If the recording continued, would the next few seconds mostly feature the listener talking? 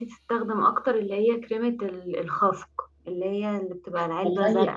Yes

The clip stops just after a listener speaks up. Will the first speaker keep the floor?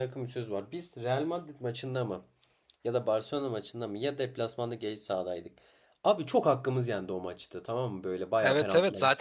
No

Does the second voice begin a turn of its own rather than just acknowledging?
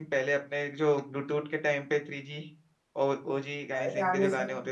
Yes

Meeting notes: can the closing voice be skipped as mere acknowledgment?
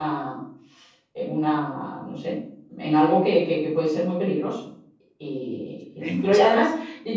Yes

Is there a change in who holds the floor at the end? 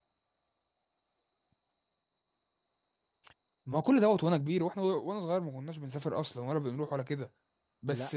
No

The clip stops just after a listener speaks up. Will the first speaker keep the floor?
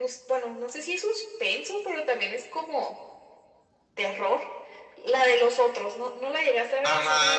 No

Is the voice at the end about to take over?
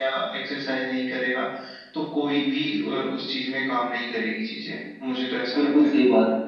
Yes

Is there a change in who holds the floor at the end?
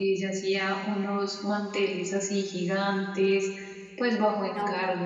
No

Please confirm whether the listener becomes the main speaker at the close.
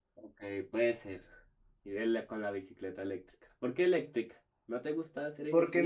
Yes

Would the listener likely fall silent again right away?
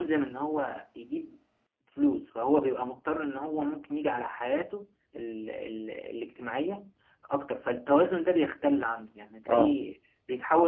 Yes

